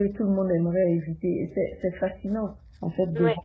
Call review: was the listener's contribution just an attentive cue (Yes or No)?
Yes